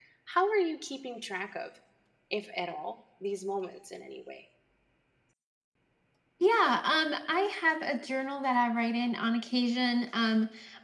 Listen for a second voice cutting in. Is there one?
No

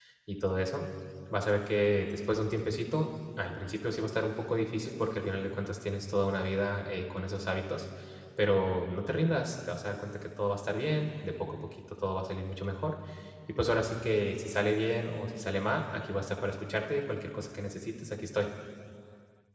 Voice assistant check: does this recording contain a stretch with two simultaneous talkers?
No

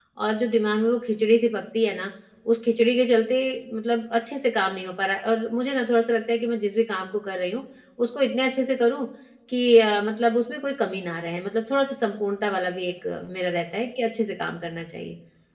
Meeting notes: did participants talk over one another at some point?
No

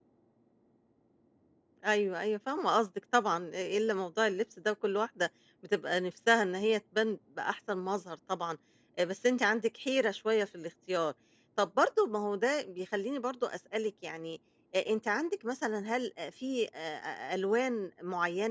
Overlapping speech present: No

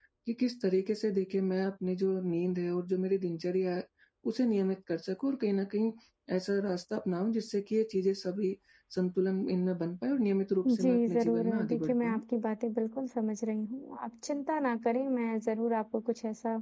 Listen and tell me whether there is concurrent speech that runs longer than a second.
Yes, from 10.6 s

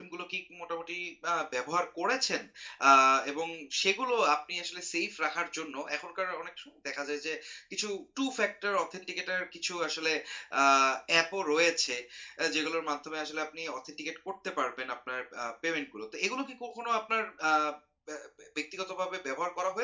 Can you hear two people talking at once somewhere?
No

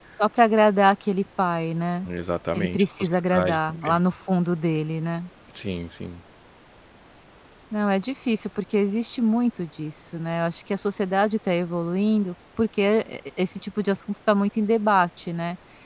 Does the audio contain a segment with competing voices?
Yes, from 2.5 s

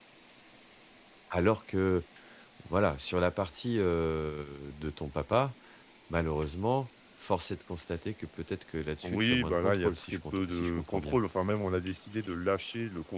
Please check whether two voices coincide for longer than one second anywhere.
Yes, from 9.0 s

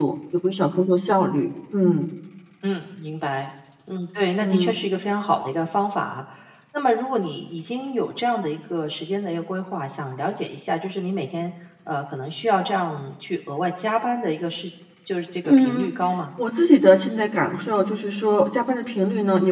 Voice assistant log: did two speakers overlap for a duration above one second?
No

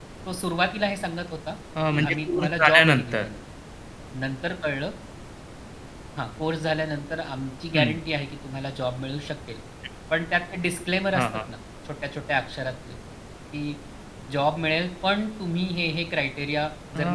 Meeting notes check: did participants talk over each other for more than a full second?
Yes, from 1.9 s

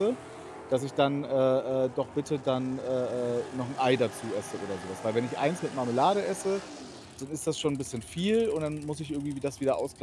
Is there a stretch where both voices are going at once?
No

